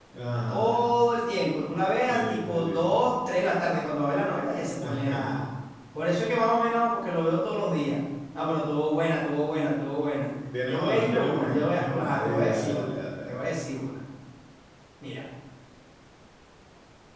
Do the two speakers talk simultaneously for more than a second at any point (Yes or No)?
Yes